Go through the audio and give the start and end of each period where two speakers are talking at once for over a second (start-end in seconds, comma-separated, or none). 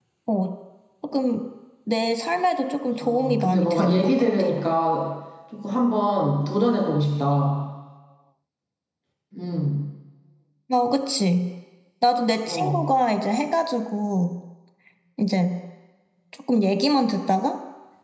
3.0-4.3